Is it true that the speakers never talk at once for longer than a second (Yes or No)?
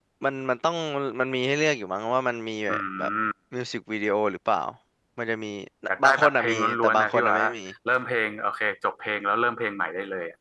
No